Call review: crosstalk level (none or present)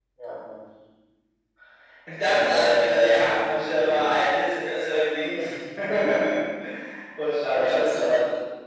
present